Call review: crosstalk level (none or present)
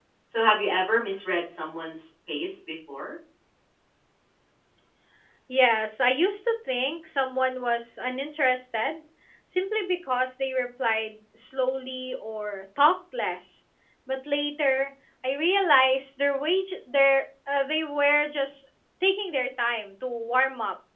none